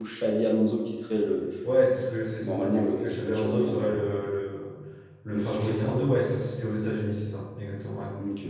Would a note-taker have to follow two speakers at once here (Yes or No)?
Yes